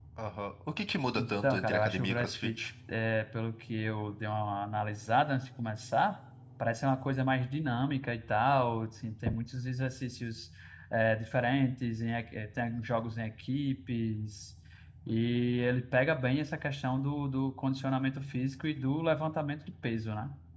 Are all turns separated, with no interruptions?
No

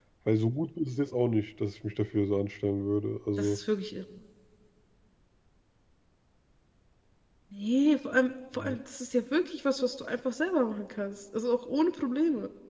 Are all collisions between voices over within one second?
Yes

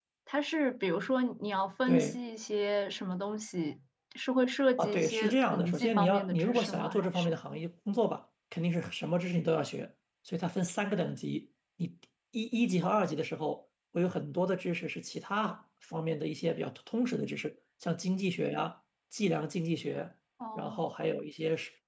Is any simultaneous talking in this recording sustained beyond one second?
Yes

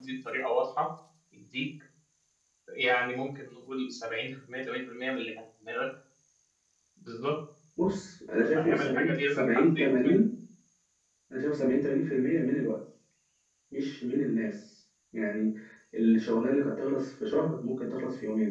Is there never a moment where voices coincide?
No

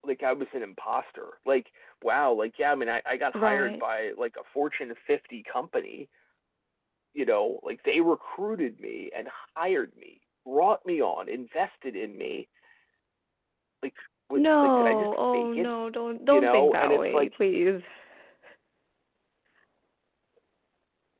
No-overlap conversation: No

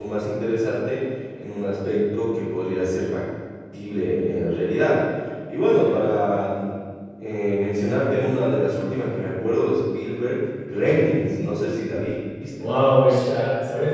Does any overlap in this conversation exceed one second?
No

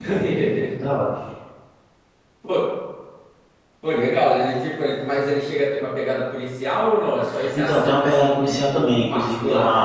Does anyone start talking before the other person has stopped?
Yes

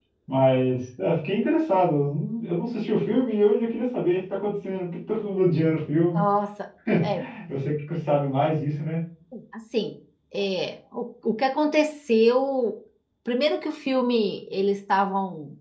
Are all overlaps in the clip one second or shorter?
Yes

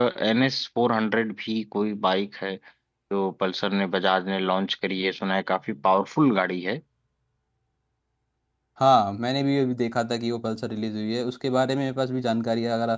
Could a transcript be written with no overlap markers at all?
Yes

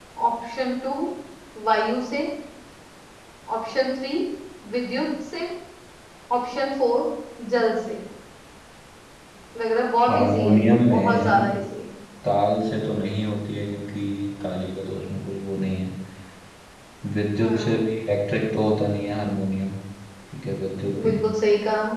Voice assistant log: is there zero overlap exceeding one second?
No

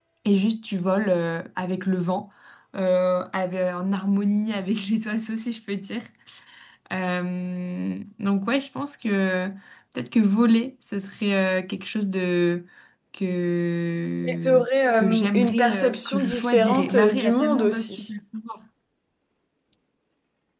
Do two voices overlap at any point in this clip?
Yes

